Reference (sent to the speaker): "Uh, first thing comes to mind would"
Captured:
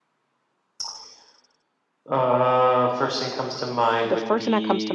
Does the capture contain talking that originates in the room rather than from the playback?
Yes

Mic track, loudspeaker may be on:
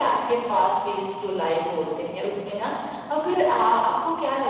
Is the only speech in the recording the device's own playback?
Yes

